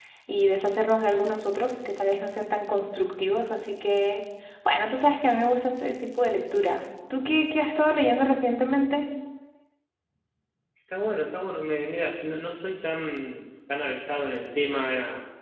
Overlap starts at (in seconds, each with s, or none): none